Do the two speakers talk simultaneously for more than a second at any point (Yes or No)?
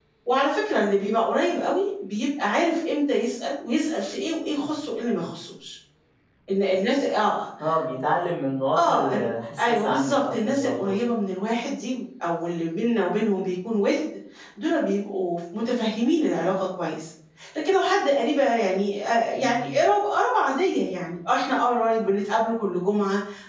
Yes